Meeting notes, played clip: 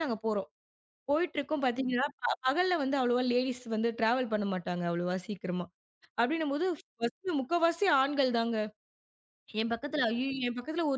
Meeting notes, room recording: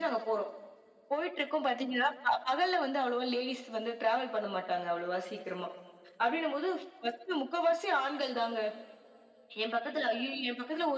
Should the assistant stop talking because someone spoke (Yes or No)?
No